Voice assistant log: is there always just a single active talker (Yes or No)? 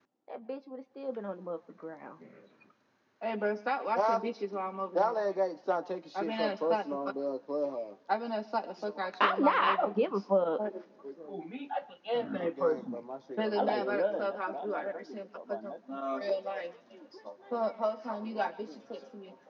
No